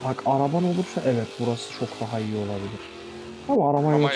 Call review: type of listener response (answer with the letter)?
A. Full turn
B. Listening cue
B